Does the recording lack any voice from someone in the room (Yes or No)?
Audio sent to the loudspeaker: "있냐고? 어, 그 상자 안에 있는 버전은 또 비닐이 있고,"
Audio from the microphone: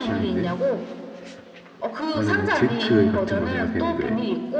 No